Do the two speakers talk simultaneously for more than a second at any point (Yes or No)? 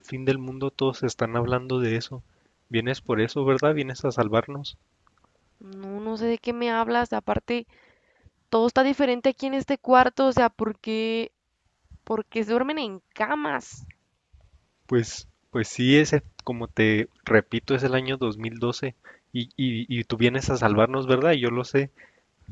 No